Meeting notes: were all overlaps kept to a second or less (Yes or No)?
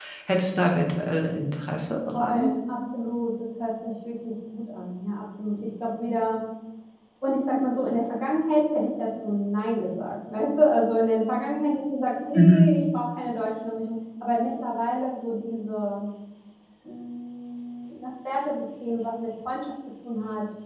Yes